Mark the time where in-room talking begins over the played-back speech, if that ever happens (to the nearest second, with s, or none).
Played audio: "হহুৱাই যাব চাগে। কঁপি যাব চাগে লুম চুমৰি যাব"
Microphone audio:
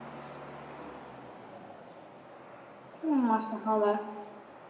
3 s